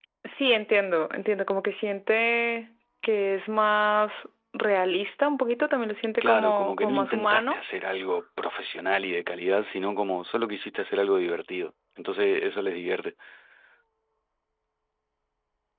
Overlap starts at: 6.2 s

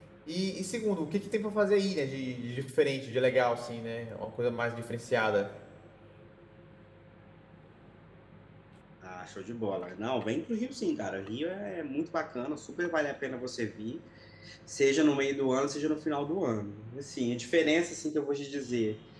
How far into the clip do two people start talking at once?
none

